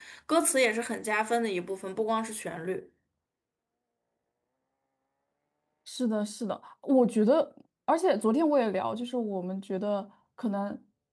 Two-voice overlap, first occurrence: none

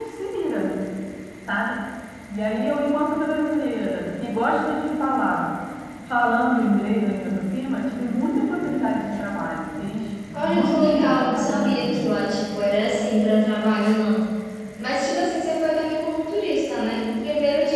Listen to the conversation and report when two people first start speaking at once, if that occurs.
10.3 s

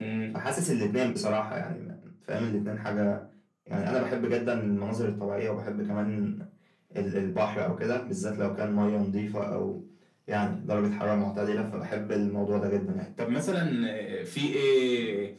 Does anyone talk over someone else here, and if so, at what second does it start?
none

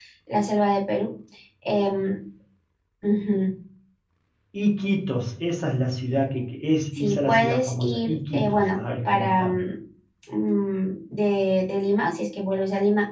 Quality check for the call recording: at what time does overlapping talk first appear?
7.0 s

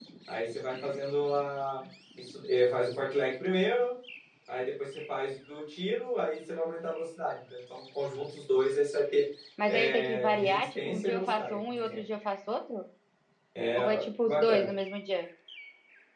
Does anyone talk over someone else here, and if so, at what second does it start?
9.7 s

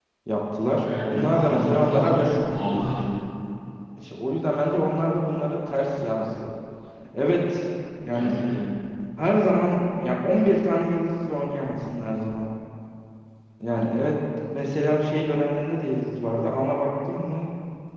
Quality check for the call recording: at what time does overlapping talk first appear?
0.8 s

